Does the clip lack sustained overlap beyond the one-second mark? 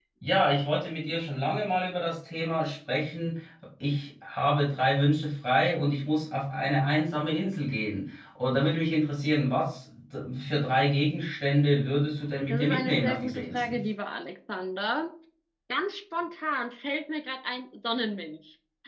No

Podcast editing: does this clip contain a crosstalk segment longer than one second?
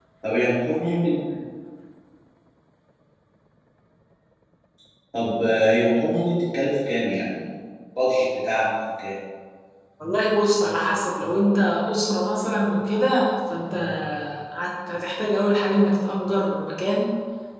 No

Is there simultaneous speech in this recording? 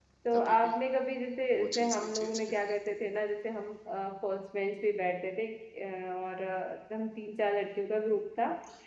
Yes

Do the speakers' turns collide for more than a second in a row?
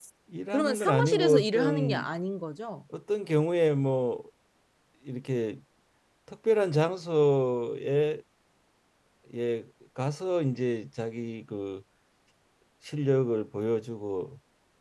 Yes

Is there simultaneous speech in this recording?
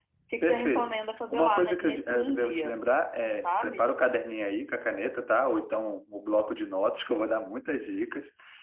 Yes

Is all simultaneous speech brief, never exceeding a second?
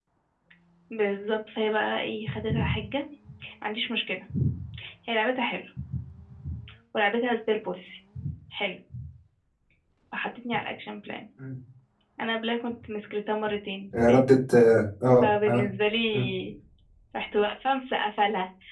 Yes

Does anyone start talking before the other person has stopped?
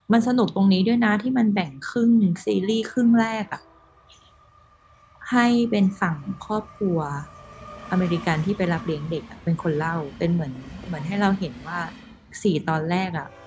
No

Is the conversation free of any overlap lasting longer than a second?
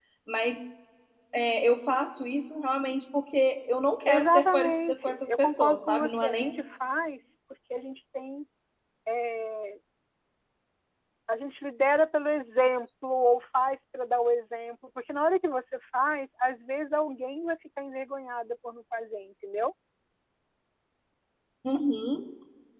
No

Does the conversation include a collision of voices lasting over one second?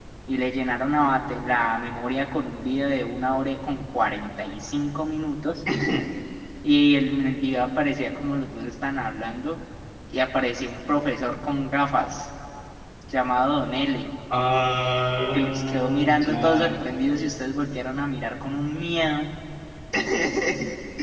Yes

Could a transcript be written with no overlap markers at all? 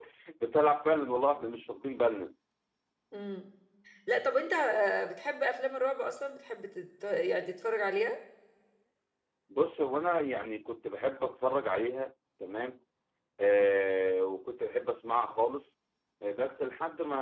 Yes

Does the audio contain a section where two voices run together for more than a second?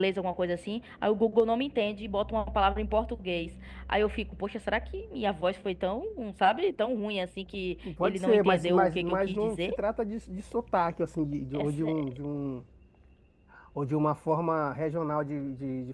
Yes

